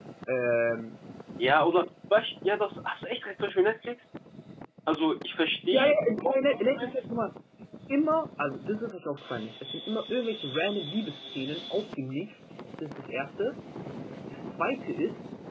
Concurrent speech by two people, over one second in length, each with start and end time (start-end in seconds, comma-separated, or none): 5.7-7.0